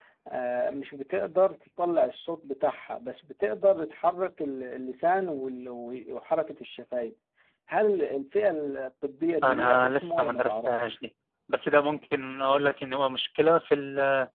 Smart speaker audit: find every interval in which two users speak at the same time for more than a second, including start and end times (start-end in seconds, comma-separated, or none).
9.4-10.9